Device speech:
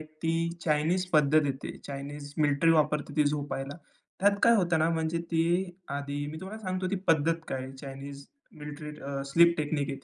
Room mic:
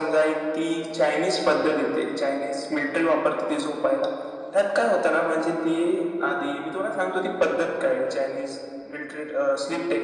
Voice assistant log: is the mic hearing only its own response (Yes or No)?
Yes